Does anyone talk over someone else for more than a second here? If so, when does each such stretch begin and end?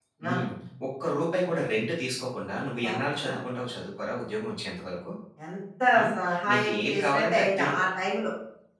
6.5-7.7

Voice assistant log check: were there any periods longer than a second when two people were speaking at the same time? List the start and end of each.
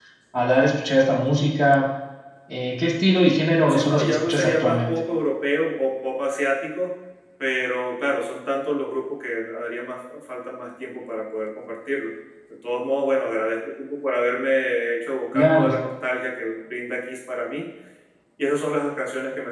3.7-5.0

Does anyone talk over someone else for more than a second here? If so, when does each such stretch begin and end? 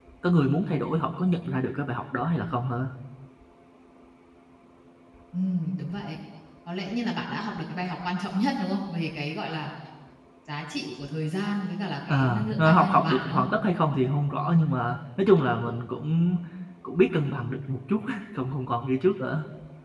12.1-13.4

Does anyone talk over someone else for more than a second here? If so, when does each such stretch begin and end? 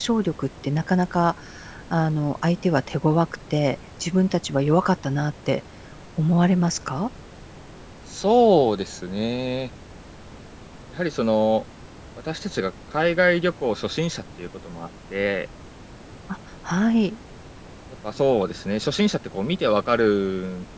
none

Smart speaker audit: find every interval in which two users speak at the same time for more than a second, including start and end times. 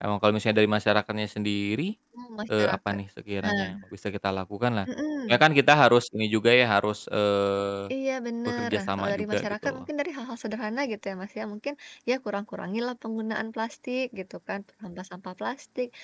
8.5-9.8

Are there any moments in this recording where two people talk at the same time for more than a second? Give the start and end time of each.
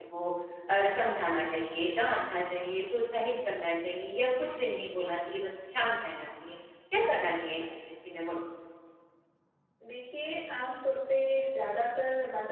none

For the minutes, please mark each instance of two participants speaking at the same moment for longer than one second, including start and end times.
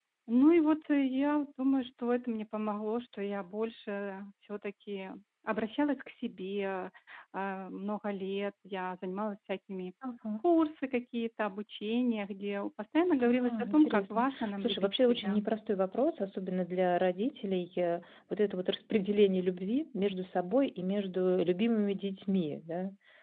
13.2-15.4

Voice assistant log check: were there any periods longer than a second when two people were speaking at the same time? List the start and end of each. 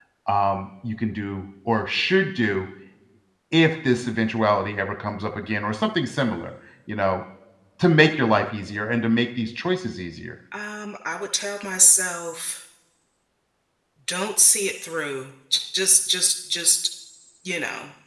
none

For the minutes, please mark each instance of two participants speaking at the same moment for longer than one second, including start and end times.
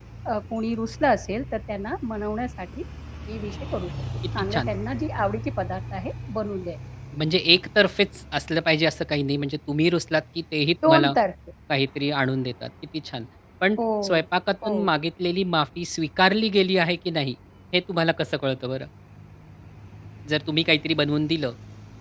none

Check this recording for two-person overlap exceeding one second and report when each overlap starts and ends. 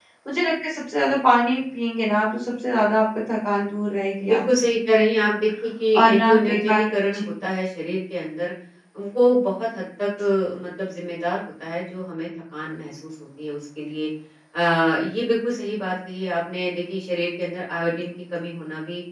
6.0-7.3

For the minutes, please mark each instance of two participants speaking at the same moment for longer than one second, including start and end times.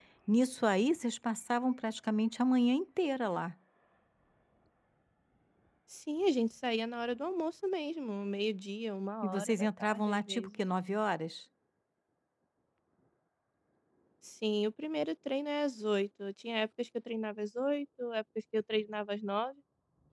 9.2-10.5

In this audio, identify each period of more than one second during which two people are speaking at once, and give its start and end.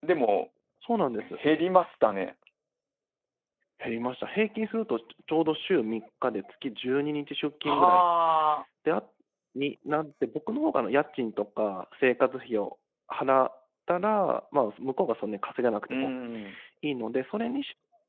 none

